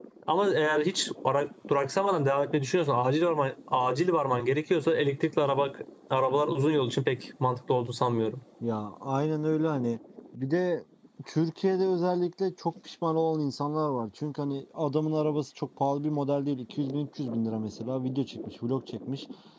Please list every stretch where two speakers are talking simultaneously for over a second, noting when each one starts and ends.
none

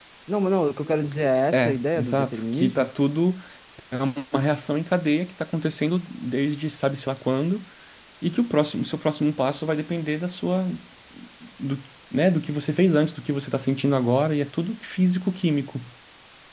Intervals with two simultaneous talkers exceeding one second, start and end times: 1.5-2.9

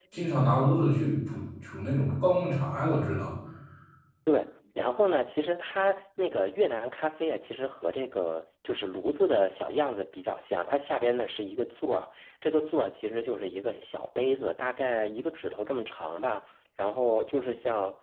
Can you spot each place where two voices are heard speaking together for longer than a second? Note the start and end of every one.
none

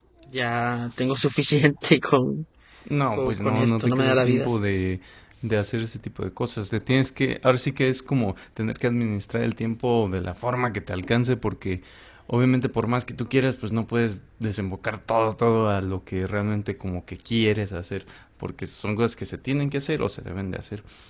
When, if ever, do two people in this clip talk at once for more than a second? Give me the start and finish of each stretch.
3.2-4.5

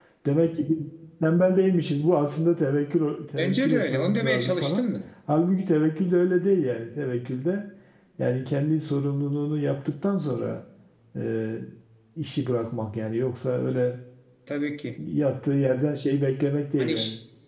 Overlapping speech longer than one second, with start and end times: 3.4-4.8

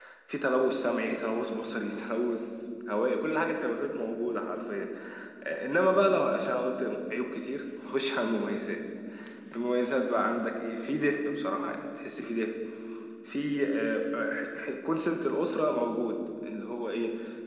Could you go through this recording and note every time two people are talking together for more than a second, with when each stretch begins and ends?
none

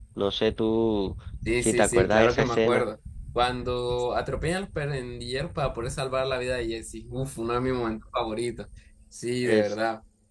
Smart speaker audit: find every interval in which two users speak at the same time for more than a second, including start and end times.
1.6-2.8

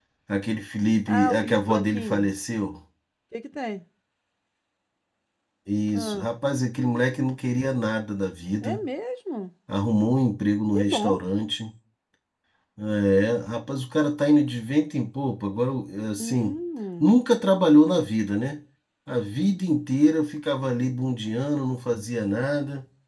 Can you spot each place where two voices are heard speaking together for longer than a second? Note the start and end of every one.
1.1-2.3

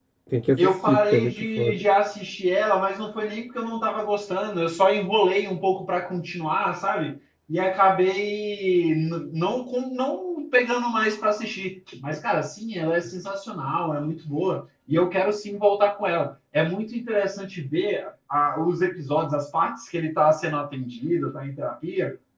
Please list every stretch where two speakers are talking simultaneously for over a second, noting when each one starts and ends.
0.6-1.8

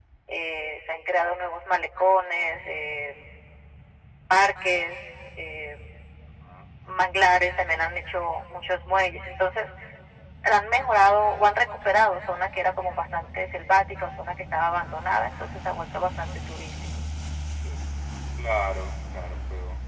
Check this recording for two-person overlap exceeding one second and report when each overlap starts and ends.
none

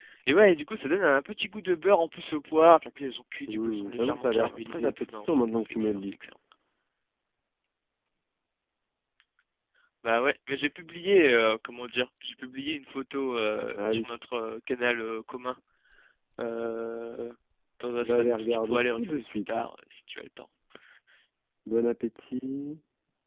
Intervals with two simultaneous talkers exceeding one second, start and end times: 3.5-6.1, 18.0-19.7

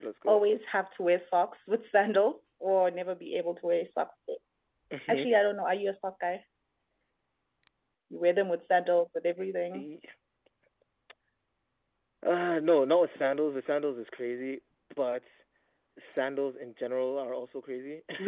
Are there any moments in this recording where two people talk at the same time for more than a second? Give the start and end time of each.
none

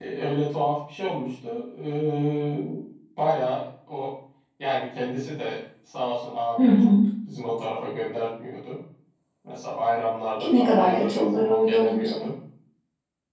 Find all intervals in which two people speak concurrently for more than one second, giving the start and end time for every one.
10.6-12.1

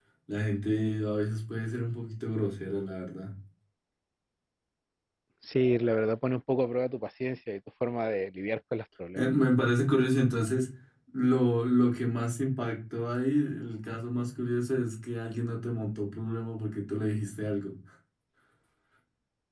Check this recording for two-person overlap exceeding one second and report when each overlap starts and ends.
none

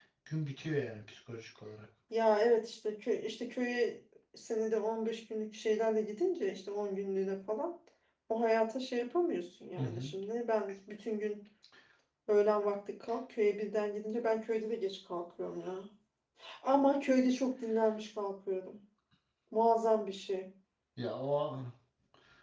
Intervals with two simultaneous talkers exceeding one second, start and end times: none

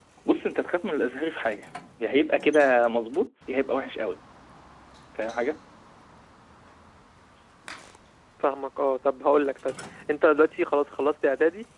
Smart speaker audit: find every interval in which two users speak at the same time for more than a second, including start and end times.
none

